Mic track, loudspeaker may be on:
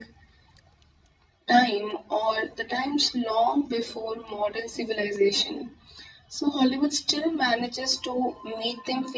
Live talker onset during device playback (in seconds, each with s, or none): none